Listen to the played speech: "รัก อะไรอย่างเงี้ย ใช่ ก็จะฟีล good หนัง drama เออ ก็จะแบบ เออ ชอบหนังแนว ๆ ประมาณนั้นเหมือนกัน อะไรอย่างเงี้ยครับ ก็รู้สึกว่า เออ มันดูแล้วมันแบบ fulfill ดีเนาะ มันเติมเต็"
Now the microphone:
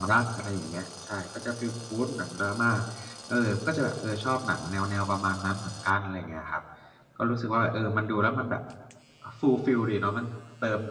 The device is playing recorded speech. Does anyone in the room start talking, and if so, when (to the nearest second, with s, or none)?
none